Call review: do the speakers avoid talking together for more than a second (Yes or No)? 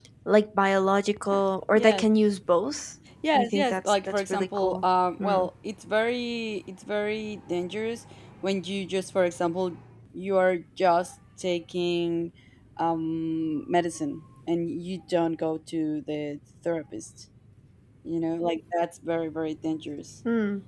No